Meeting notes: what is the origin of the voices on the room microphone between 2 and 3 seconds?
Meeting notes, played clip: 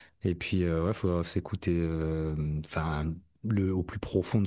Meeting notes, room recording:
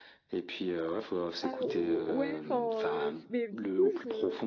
both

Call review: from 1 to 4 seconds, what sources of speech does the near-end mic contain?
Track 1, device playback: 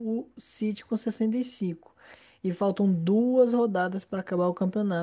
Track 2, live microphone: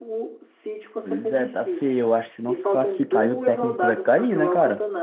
both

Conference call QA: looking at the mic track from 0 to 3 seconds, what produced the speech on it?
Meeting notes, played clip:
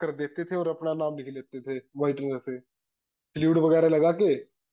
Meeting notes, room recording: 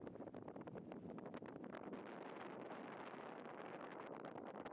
neither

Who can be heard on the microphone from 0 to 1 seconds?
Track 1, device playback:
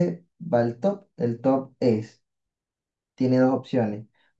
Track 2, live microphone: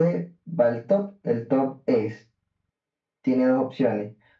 echo only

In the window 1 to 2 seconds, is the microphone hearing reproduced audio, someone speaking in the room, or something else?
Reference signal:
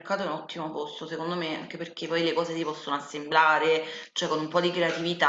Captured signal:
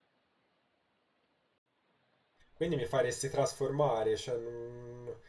neither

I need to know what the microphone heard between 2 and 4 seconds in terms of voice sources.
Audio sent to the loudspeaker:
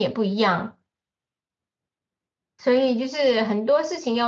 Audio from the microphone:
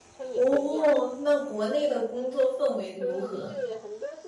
both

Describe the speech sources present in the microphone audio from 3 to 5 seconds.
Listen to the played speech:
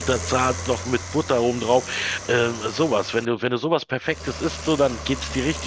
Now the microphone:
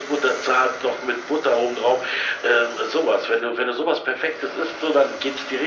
echo only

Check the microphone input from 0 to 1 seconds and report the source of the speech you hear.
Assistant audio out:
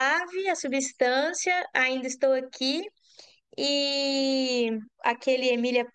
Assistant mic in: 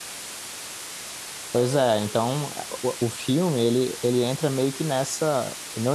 neither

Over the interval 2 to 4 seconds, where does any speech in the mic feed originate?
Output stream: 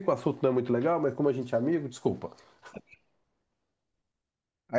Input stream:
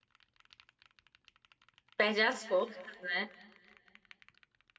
user only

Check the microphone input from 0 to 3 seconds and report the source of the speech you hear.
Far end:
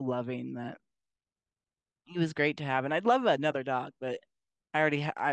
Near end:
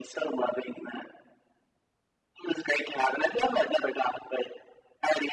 echo only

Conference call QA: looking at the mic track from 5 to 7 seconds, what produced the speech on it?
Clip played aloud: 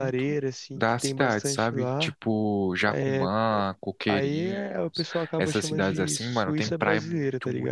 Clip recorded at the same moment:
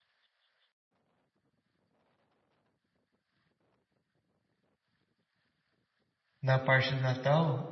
user only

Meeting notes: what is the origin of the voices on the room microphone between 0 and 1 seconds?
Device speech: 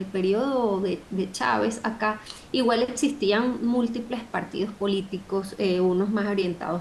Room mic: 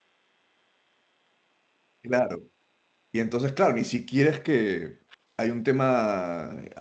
neither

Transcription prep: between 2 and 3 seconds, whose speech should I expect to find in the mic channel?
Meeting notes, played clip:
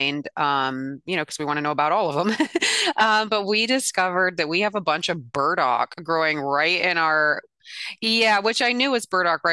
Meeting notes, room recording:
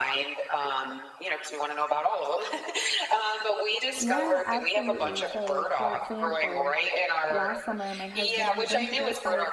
echo only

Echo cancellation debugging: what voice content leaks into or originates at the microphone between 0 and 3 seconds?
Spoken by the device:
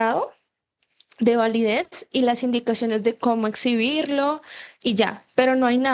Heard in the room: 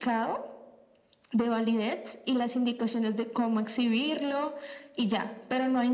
echo only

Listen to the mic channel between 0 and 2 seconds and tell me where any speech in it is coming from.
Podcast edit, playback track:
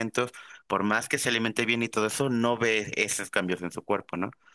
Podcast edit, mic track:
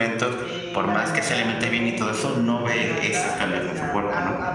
both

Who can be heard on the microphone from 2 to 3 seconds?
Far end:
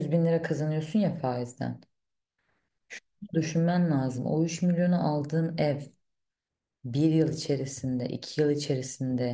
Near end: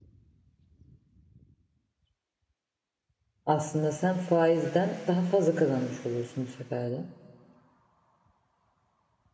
neither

